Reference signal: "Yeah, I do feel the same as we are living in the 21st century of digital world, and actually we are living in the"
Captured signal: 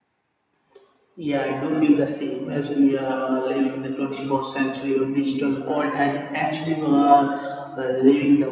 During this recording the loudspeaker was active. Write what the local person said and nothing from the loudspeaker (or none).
none